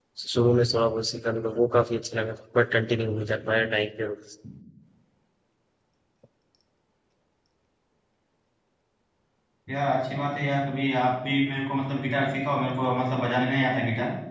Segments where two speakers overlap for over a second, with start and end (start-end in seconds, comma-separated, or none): none